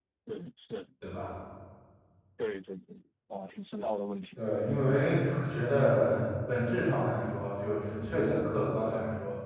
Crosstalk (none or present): none